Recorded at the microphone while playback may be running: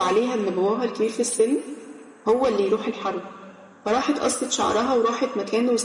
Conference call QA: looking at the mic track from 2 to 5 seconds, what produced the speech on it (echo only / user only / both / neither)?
echo only